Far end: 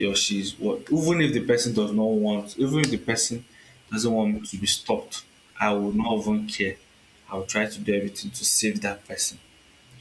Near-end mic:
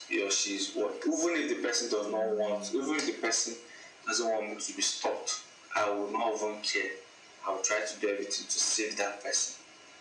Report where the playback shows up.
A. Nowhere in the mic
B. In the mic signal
B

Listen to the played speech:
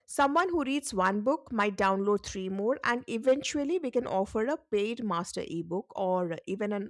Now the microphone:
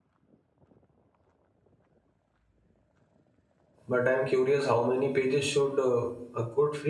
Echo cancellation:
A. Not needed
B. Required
A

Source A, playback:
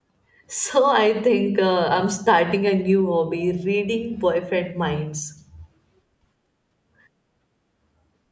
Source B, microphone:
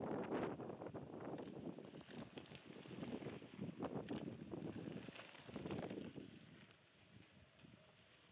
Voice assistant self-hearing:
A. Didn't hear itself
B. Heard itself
A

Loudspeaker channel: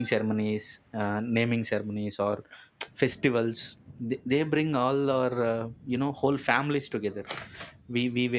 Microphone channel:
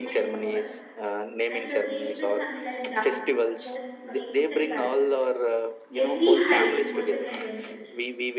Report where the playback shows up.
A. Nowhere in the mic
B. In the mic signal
B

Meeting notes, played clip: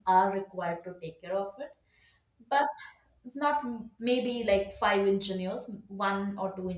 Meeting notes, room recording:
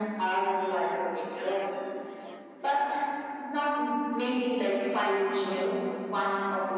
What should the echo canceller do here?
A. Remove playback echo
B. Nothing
A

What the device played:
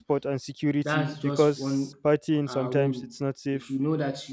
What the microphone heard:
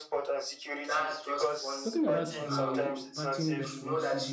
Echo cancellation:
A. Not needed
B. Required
B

